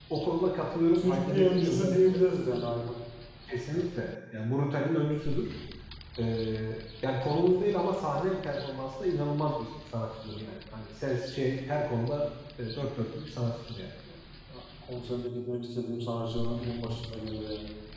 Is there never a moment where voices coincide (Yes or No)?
No